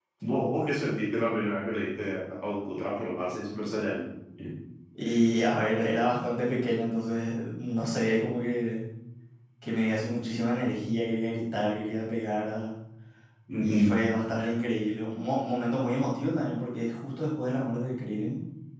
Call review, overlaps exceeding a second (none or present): none